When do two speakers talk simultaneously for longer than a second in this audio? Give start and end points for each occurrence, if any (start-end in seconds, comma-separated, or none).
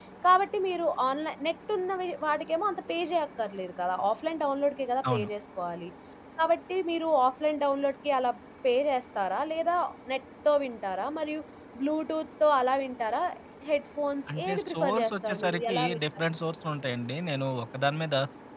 14.4-16.0